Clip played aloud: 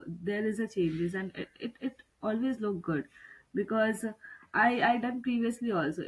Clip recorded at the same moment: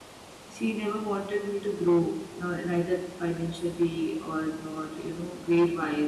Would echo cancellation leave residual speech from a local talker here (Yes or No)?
Yes